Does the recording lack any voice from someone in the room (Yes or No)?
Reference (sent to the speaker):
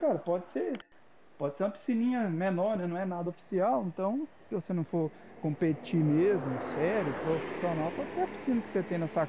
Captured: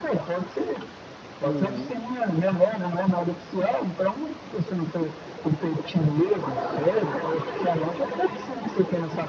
No